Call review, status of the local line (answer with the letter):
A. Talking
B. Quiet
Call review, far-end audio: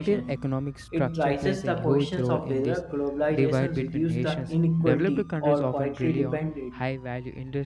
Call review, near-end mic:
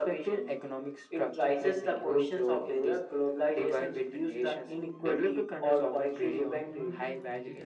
A